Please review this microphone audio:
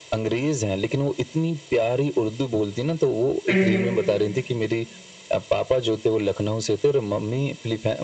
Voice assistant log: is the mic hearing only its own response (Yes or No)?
No